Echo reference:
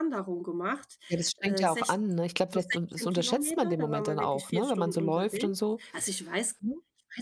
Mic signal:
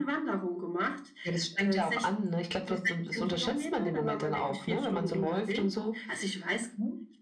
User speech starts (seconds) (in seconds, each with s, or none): none